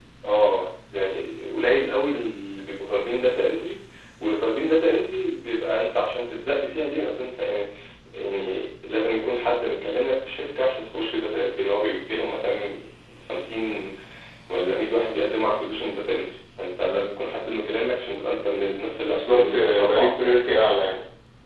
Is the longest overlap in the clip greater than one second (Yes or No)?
Yes